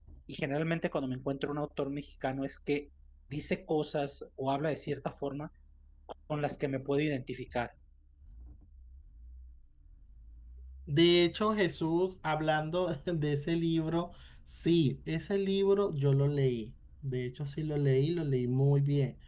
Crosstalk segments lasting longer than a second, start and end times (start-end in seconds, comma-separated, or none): none